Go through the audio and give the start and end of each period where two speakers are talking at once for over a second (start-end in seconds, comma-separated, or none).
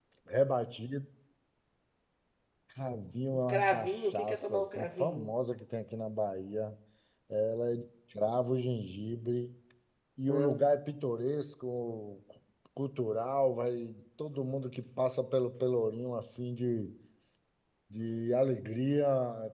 3.5-5.3